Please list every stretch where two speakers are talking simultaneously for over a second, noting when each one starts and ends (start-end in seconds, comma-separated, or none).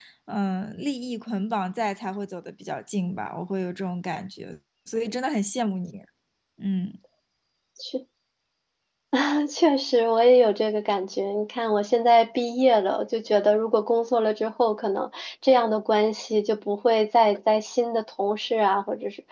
none